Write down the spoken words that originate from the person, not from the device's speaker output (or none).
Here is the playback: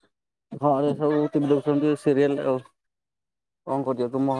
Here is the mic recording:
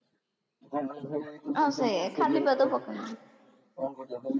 ହଁ ସେ ଖାଲି ପାଦ ପକାନ୍ତିନି।